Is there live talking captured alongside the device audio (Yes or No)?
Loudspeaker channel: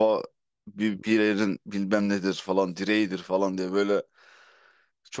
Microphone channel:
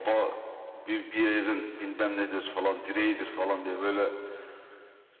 No